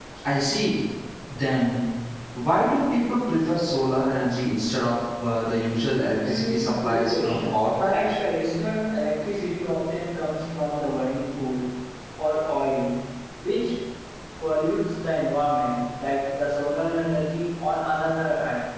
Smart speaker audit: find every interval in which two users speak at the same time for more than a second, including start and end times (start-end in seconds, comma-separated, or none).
6.2-8.0